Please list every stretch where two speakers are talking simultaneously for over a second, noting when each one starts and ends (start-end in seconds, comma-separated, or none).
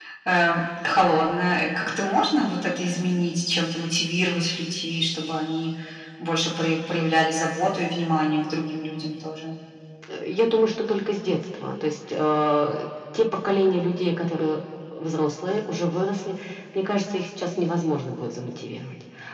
none